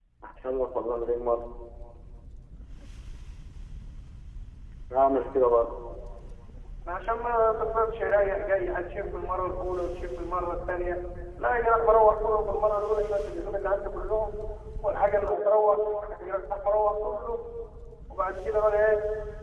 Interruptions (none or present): none